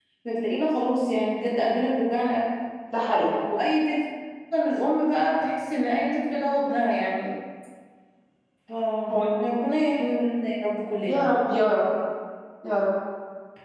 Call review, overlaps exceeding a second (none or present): none